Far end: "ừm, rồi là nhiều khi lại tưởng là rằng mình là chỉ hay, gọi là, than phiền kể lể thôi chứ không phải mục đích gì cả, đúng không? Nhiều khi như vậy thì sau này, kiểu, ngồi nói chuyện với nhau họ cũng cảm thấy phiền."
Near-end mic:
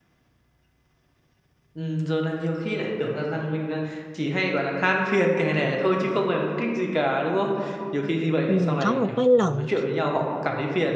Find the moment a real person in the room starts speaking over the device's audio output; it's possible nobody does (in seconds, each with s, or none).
8.5 s